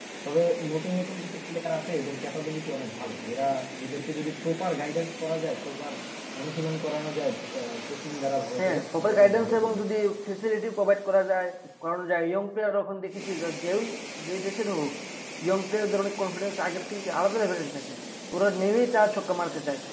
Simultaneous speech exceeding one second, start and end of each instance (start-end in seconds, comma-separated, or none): 8.6-9.8